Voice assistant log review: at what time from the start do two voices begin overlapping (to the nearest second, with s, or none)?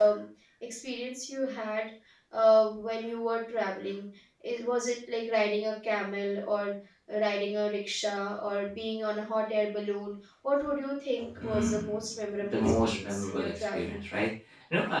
11 s